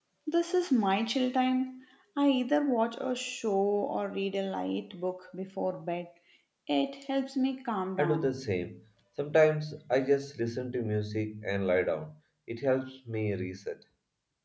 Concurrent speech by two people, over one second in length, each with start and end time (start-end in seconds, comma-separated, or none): none